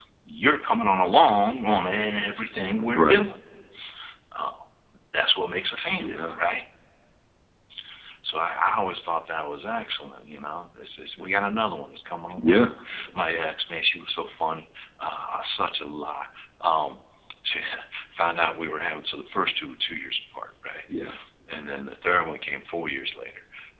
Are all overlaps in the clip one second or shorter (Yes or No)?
Yes